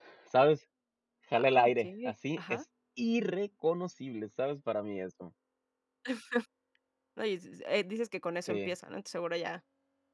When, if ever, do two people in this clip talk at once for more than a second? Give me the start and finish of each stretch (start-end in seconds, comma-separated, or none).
1.3-2.6